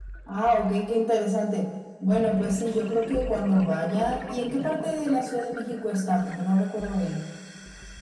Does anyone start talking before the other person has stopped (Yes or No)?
No